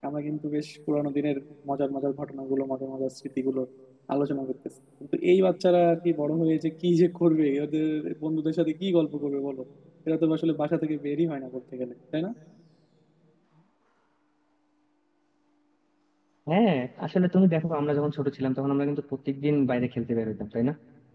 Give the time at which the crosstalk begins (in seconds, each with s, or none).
none